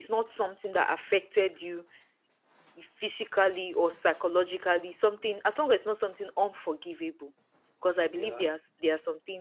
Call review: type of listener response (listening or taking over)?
listening